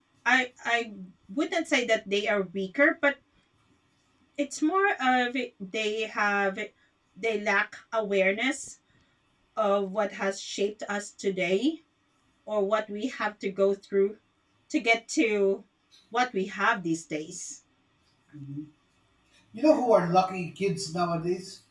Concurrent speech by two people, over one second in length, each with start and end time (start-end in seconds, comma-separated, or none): none